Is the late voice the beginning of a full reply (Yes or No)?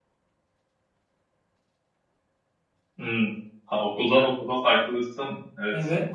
Yes